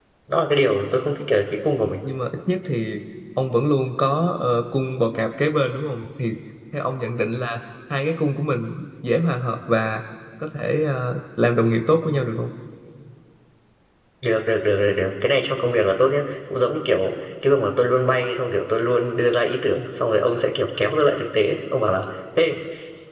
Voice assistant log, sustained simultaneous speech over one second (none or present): none